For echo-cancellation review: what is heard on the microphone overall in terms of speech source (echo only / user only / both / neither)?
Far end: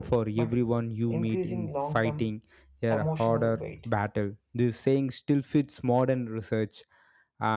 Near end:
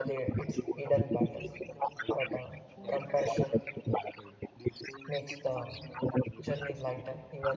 both